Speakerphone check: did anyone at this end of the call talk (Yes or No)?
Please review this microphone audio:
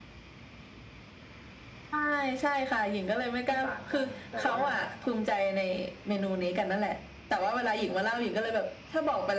Yes